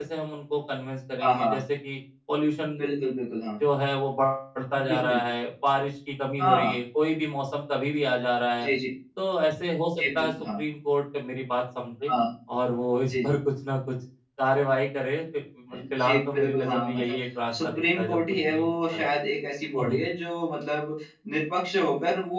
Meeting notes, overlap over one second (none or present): present